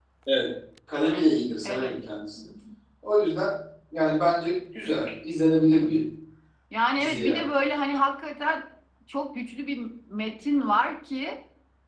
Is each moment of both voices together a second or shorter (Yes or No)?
Yes